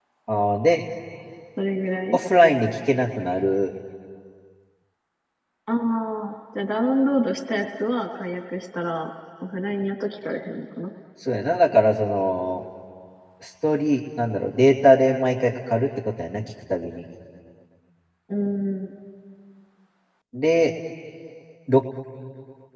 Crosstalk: none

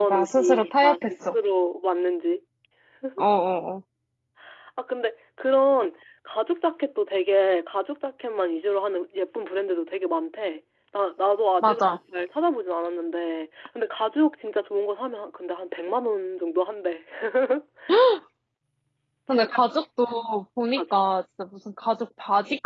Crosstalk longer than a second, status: present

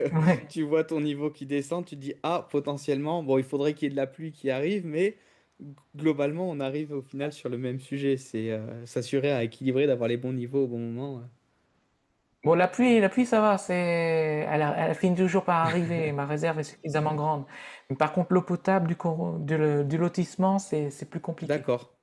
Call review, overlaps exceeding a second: none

